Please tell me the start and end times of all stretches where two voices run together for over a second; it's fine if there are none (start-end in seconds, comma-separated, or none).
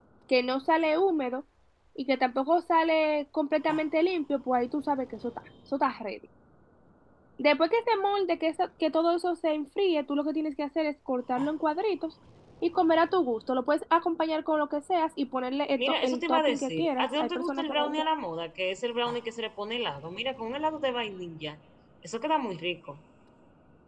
15.8-18.0